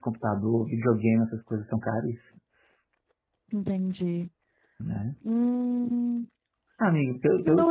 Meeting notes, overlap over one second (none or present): none